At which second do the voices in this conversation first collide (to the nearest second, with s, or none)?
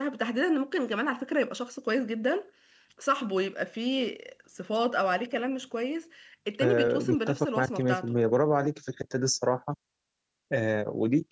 7 s